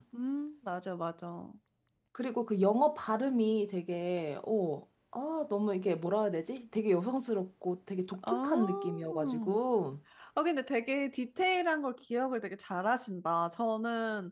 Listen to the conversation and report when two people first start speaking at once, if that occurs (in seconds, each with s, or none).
8.2 s